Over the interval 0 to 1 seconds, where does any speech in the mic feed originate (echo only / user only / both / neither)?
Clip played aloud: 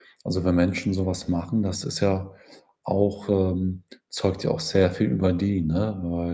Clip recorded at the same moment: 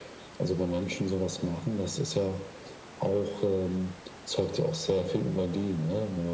echo only